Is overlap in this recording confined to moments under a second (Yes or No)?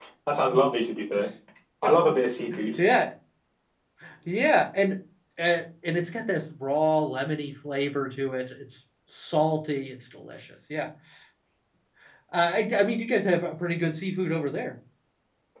Yes